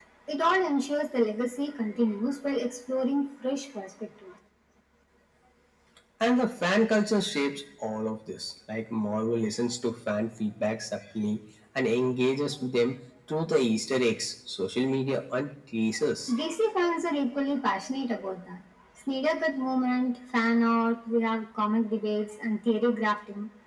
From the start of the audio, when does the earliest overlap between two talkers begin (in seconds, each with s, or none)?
none